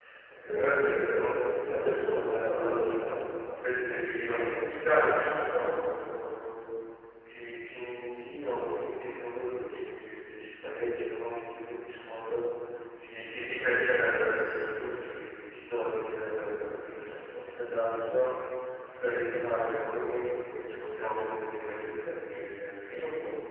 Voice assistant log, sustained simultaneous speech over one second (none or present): present